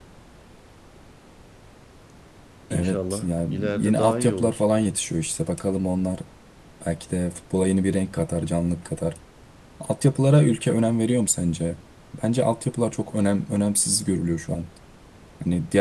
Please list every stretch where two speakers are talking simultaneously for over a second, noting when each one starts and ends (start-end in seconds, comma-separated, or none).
2.7-4.6